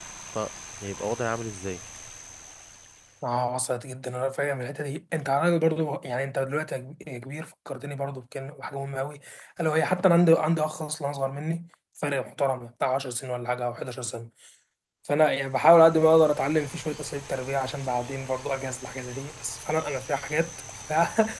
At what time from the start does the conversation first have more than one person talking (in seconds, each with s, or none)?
none